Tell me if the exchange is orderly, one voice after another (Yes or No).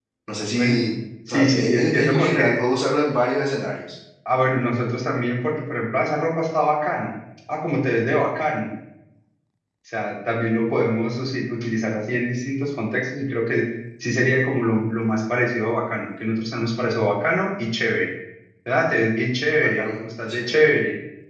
No